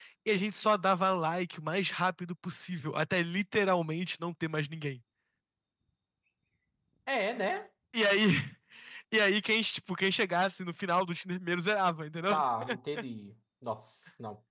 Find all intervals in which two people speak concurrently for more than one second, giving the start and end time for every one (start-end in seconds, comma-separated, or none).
none